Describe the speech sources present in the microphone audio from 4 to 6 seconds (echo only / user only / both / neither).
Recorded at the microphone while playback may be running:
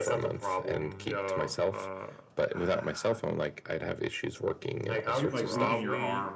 both